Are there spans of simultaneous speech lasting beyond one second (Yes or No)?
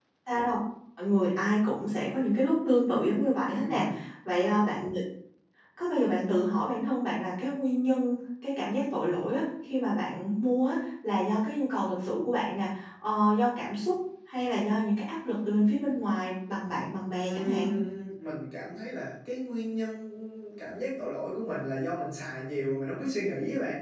No